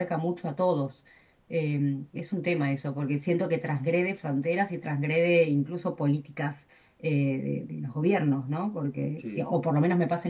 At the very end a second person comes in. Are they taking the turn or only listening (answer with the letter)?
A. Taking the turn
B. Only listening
B